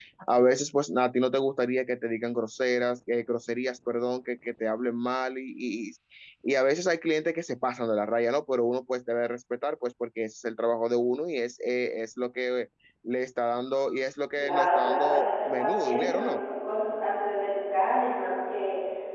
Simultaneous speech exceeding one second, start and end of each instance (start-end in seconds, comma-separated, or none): 14.4-16.4